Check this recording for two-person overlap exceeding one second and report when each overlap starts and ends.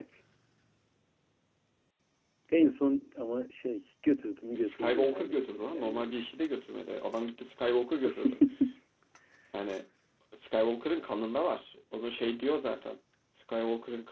4.6-6.1

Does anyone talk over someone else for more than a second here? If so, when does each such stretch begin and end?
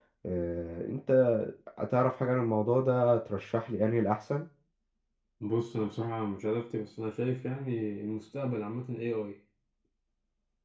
none

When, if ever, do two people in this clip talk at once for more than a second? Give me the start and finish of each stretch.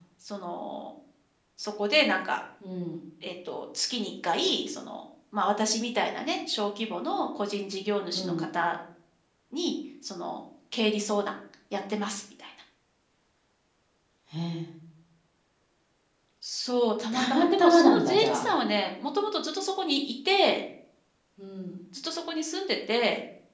17.1-18.5

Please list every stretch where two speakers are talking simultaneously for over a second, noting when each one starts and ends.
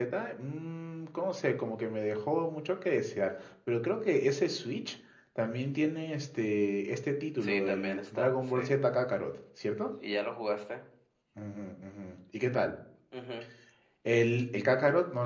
7.4-8.6

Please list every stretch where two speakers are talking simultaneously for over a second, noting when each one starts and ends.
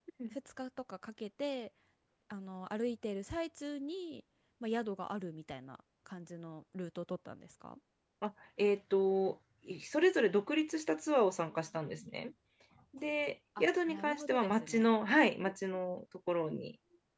13.6-14.9

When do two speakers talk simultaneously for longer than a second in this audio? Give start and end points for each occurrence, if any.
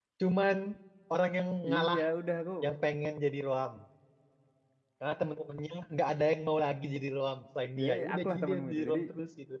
7.8-9.0

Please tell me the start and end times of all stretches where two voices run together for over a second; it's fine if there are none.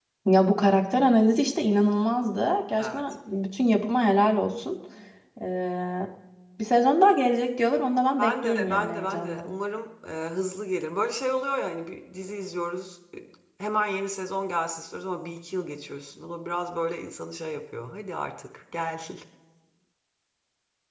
8.2-9.5

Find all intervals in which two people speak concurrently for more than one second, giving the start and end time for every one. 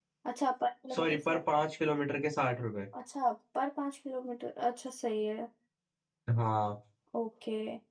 none

